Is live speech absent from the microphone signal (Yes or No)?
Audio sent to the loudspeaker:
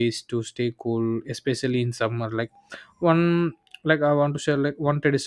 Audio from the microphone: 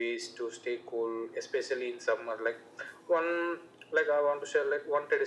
Yes